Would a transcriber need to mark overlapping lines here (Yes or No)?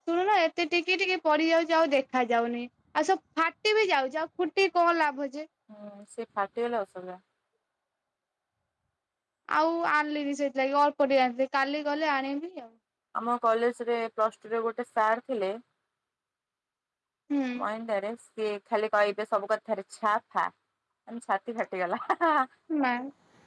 No